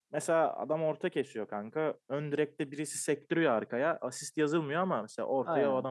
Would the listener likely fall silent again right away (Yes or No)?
No